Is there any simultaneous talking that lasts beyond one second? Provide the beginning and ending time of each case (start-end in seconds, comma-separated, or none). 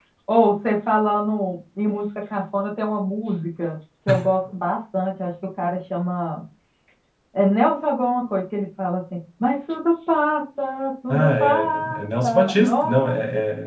11.1-13.1